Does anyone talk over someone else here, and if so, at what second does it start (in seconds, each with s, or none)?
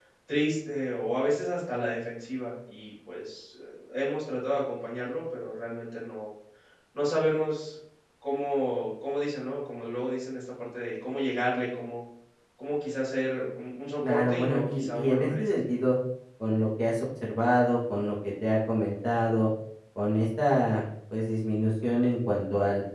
14.0 s